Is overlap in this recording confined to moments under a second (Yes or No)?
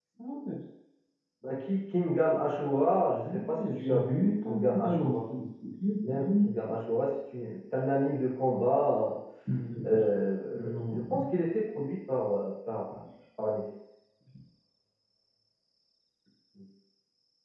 No